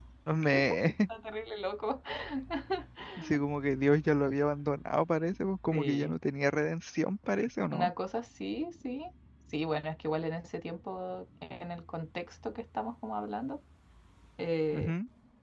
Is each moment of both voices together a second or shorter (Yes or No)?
Yes